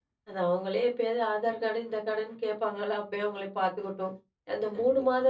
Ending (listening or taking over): listening